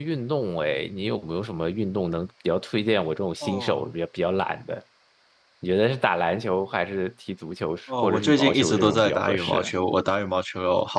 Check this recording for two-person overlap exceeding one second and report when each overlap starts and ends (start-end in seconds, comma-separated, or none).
8.0-9.7